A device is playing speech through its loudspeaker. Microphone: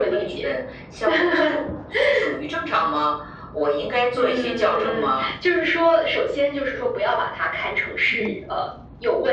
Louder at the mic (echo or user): echo